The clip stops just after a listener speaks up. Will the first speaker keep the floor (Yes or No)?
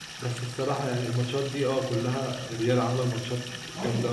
No